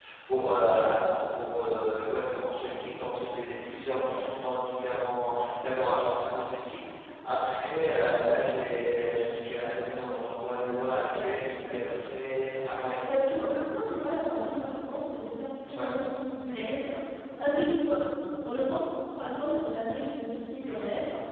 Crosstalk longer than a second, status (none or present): none